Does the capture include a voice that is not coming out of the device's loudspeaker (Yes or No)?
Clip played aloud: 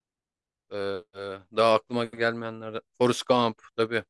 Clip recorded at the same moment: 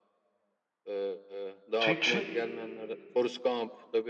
Yes